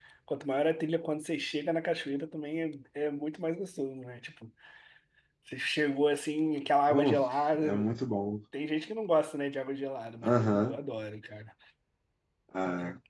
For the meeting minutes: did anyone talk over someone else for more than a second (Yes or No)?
No